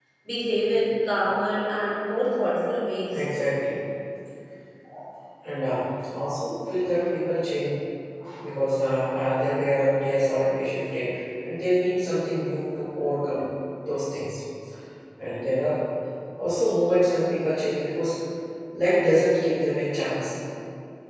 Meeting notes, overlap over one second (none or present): none